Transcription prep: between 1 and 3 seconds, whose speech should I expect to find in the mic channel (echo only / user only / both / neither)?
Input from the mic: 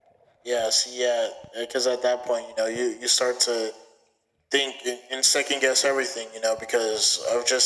echo only